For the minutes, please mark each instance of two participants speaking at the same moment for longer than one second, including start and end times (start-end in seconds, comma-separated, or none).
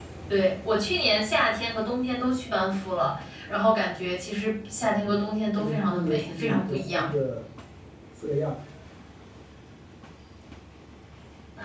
4.8-7.1